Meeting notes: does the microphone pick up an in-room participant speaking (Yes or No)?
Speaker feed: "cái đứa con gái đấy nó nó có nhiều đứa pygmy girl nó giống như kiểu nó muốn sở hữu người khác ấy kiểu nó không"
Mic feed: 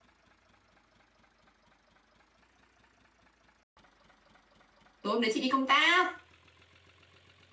Yes